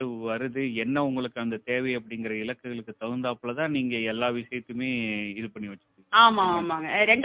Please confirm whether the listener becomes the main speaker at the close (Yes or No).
Yes